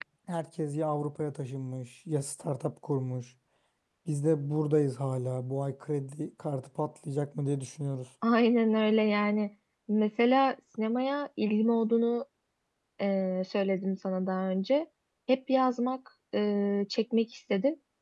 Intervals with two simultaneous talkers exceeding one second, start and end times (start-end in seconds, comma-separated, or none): none